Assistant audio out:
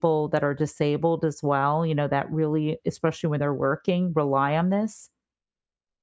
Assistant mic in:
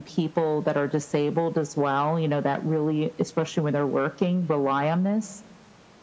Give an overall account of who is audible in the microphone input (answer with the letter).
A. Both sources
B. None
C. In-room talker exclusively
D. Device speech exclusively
D